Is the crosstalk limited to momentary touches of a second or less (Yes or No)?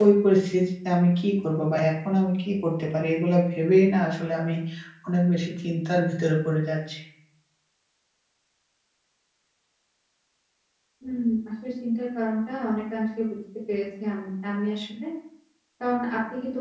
Yes